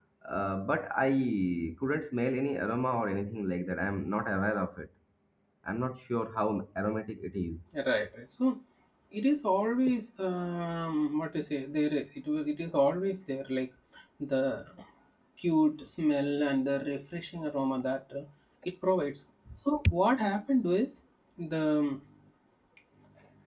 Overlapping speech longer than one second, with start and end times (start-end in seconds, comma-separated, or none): none